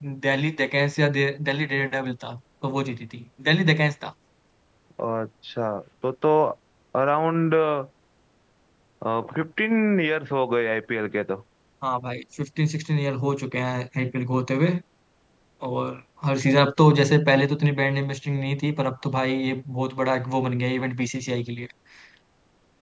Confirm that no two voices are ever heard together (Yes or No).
Yes